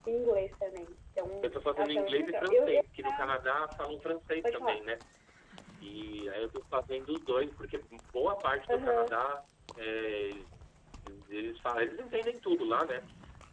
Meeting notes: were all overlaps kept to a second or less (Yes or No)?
No